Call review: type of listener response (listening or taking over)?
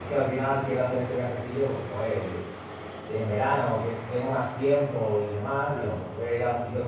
listening